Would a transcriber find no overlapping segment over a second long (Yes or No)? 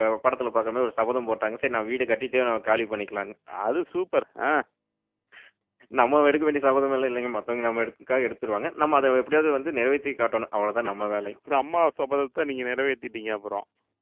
Yes